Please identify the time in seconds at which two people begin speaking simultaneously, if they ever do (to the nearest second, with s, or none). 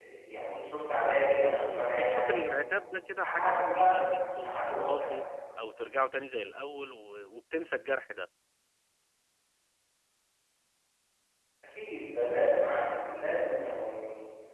1 s